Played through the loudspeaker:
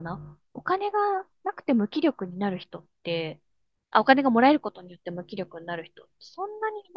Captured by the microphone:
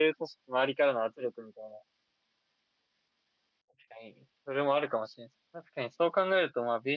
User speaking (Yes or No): Yes